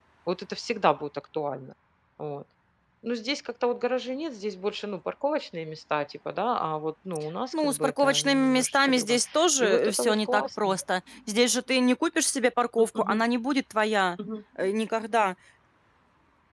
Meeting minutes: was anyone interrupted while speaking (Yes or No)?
Yes